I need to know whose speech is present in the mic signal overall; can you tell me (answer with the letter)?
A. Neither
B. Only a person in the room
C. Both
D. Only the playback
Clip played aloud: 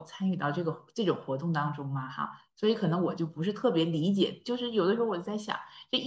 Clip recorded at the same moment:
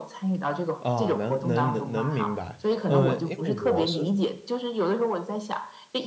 C